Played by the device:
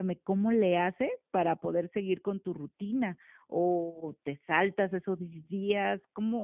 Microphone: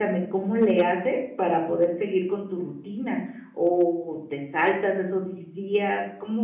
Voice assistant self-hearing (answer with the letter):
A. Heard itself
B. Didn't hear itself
A